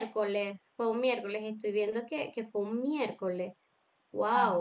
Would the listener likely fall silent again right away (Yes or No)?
No